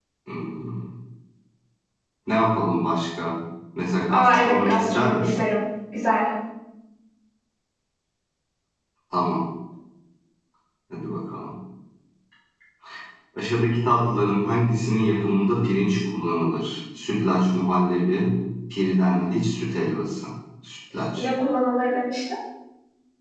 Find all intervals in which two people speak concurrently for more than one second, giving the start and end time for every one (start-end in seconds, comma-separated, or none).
4.1-5.4